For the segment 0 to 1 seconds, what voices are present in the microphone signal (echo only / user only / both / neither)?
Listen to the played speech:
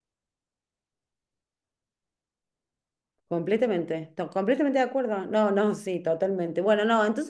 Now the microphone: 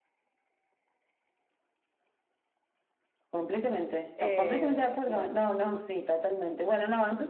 neither